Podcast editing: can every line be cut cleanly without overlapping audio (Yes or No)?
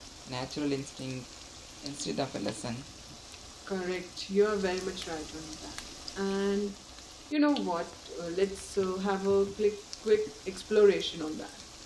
Yes